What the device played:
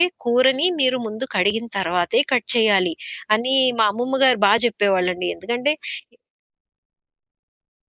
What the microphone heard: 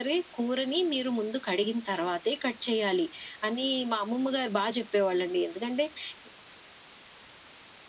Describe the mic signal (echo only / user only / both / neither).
echo only